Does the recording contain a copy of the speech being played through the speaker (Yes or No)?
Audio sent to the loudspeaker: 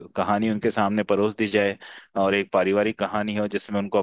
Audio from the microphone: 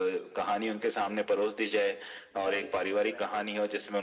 Yes